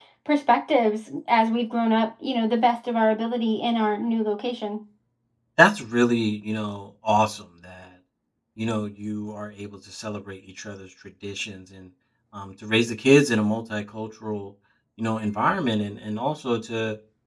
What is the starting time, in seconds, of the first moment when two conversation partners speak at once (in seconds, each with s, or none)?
none